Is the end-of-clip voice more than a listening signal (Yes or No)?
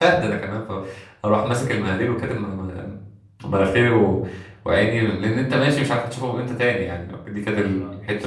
Yes